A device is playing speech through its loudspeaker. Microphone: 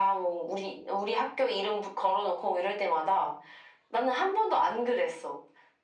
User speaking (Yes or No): No